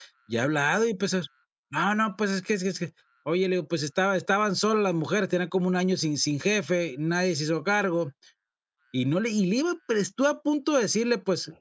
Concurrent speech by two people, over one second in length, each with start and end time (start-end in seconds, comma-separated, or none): none